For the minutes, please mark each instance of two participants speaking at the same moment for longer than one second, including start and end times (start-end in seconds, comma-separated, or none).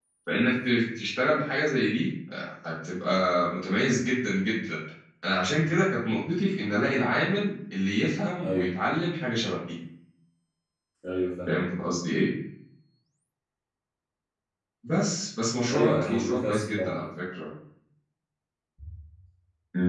15.7-17.0